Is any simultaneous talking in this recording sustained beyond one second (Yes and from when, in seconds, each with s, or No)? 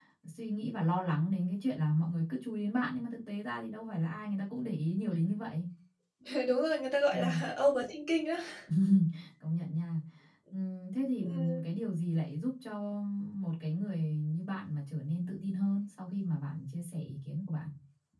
No